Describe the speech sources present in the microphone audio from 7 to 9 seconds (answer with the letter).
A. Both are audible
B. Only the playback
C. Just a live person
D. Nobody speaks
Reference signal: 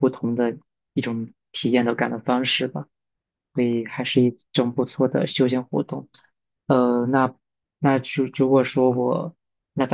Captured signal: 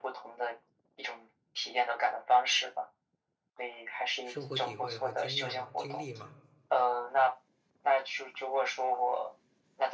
B